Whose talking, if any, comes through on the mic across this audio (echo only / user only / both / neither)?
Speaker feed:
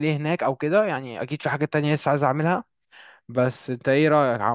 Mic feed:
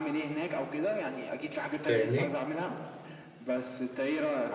both